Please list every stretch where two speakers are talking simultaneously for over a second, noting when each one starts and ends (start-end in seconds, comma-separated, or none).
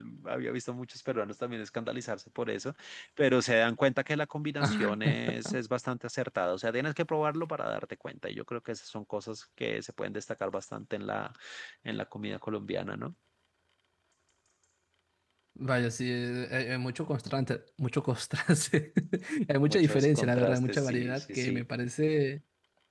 19.7-21.6